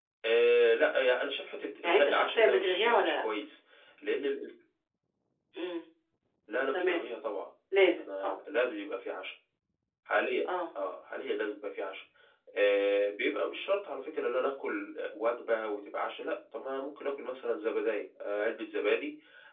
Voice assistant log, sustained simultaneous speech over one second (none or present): present